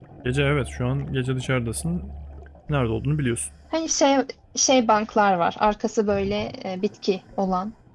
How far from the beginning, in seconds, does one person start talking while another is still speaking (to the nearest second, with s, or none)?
none